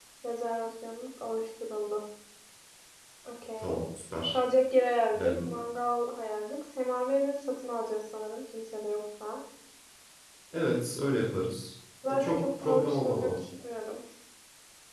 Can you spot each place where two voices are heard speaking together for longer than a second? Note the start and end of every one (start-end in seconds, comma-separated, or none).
12.1-13.4